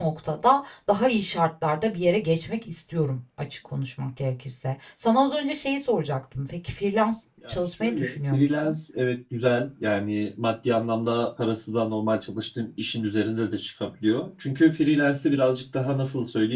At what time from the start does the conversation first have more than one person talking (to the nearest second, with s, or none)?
7 s